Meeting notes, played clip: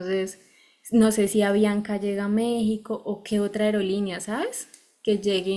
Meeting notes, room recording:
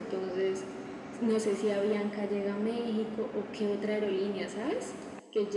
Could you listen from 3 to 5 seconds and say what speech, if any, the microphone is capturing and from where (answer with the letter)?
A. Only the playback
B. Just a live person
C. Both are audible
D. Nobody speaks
A